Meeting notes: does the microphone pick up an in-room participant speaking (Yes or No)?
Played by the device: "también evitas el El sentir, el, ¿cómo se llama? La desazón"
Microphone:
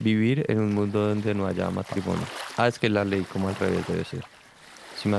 Yes